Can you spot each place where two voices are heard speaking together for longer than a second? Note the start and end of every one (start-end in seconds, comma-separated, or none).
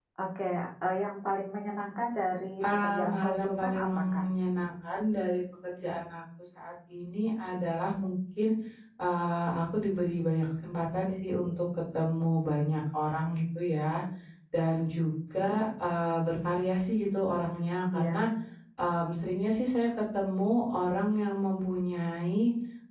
2.6-4.2